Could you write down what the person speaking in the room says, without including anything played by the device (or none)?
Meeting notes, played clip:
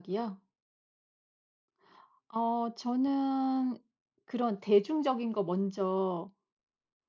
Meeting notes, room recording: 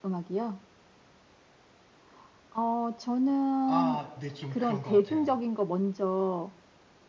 아 네. 좀 그런 것 같아요.